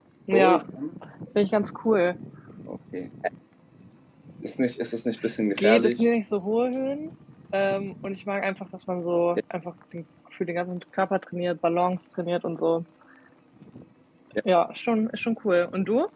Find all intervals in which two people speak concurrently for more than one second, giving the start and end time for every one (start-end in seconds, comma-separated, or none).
none